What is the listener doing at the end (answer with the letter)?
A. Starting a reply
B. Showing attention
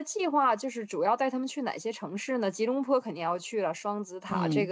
B